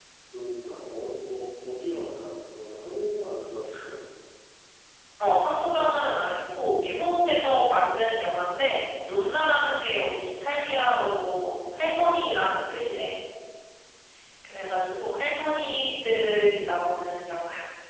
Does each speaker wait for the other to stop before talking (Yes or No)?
Yes